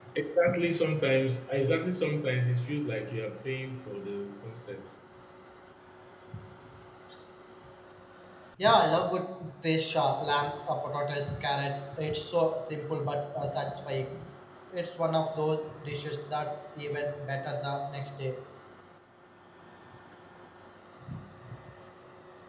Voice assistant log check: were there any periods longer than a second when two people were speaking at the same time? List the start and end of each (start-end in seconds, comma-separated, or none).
none